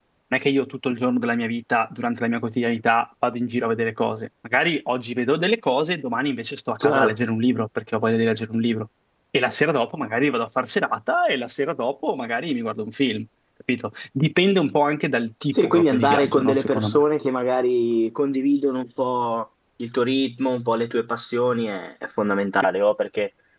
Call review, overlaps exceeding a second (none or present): present